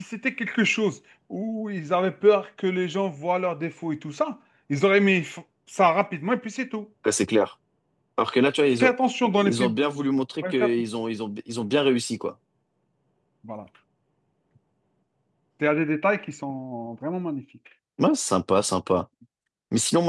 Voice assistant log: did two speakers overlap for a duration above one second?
No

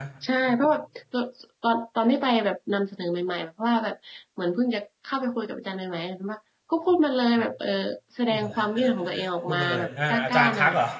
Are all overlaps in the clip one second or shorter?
No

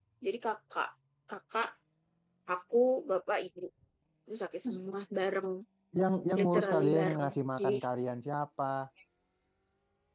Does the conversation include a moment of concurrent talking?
Yes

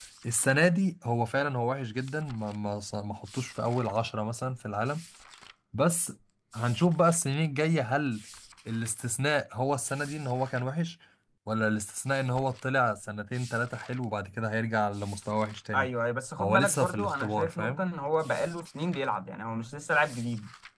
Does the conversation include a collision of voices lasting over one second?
Yes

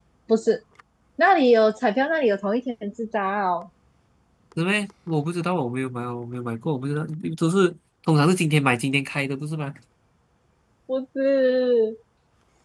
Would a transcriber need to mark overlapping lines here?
No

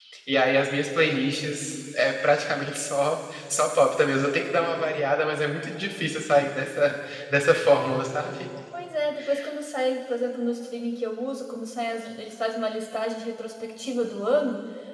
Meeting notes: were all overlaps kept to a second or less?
Yes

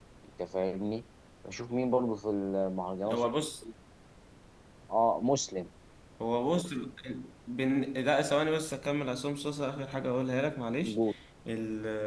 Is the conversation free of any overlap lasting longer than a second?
Yes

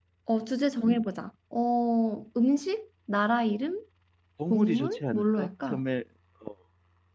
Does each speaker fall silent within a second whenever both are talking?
No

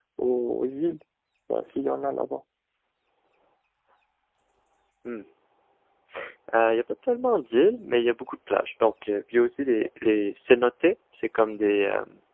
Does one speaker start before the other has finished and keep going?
No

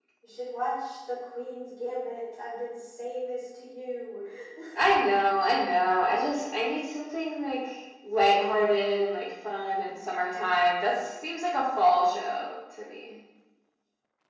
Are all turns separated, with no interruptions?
Yes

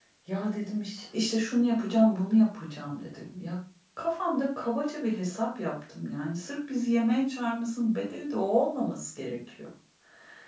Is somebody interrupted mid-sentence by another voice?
No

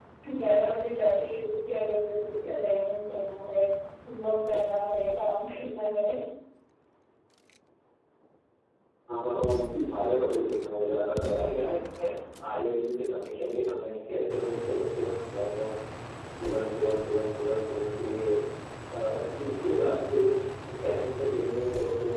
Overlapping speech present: No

